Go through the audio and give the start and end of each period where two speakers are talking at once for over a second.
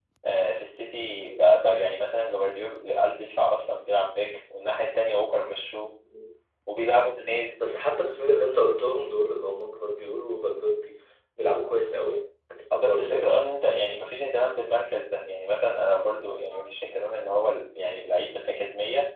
none

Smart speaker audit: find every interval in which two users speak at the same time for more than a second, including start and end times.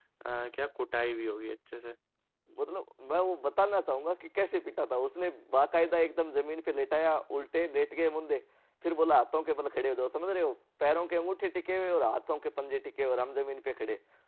none

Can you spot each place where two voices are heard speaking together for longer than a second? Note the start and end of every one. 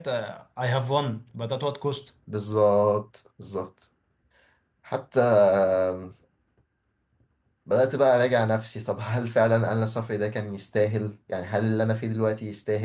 none

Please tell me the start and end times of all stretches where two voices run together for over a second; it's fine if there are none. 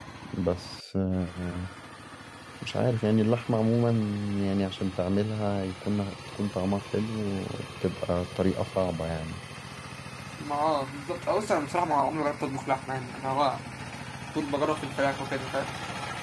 none

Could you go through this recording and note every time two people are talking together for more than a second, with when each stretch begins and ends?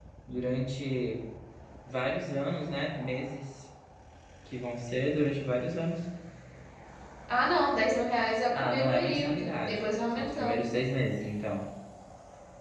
8.5-10.8

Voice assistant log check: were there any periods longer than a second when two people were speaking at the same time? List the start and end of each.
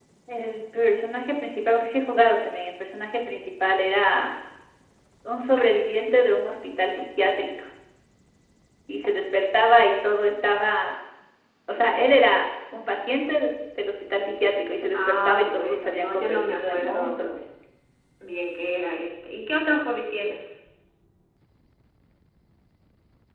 14.9-17.2

